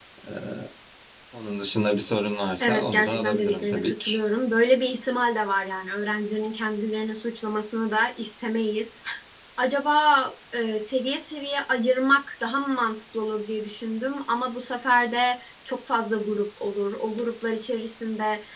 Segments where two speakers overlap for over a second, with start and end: 2.6-4.2

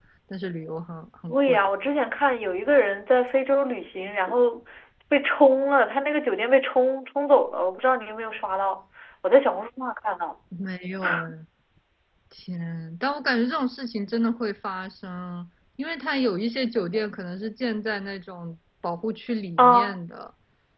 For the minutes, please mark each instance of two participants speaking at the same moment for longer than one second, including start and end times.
none

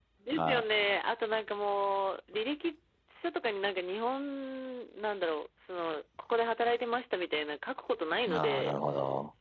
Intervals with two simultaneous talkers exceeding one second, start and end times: none

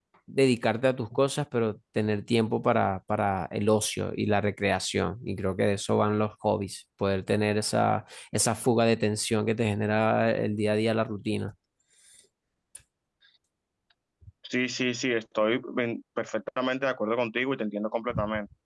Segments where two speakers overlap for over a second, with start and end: none

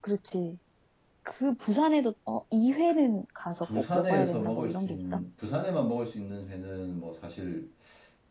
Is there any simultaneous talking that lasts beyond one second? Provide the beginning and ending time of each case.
3.6-5.0

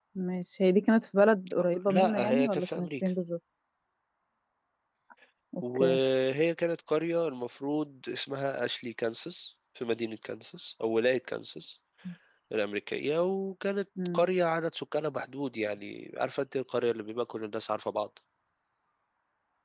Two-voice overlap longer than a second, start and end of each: 1.9-3.1

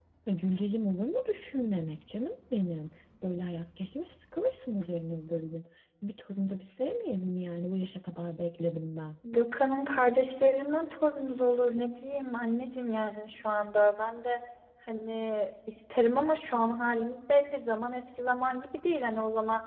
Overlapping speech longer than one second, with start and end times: none

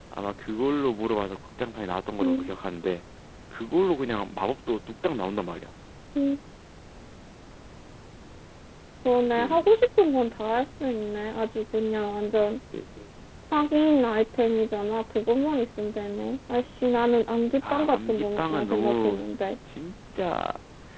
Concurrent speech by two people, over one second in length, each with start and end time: 17.7-19.2

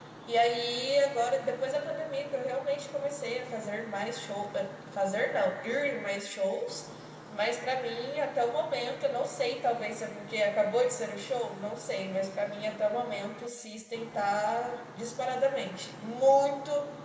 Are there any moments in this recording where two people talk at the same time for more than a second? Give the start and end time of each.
none

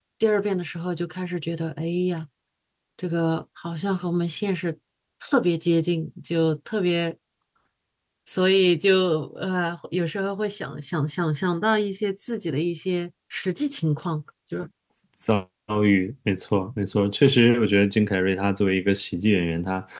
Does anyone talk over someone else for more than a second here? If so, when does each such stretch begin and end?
none

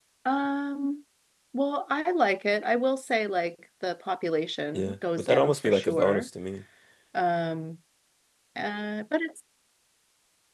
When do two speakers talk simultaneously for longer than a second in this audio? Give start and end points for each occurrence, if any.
4.7-6.3

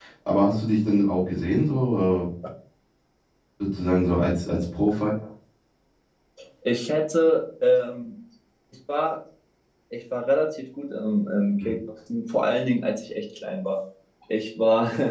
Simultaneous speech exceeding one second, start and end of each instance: none

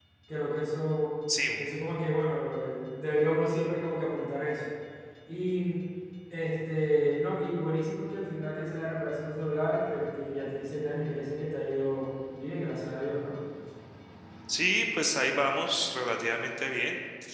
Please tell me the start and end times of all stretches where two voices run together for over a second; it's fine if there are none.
none

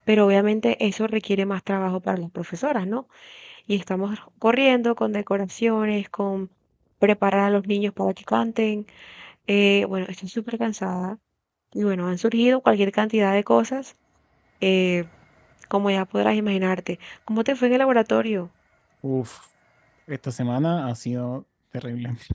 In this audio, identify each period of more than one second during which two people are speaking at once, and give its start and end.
none

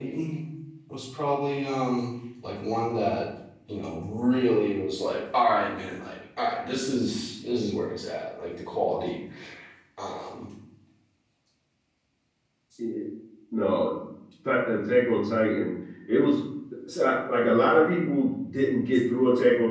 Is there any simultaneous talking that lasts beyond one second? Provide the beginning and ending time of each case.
none

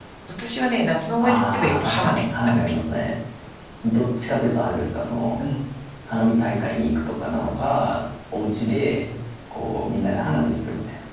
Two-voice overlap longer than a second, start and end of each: 1.2-2.7

